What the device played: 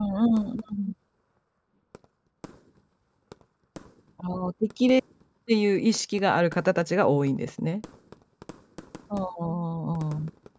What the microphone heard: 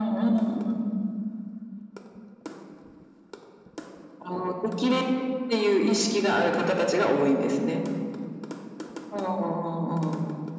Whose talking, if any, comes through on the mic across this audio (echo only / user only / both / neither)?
echo only